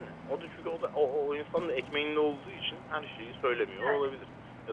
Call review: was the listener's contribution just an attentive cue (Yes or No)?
Yes